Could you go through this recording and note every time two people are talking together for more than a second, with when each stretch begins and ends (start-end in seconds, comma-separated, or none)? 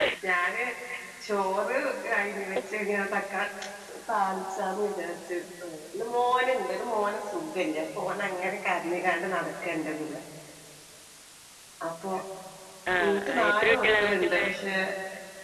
13.0-14.5